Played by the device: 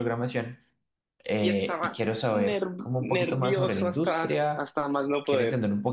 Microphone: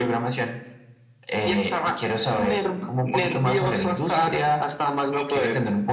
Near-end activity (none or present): none